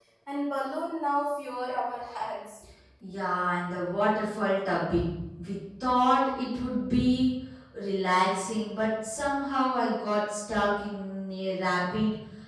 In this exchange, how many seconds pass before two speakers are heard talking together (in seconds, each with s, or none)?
none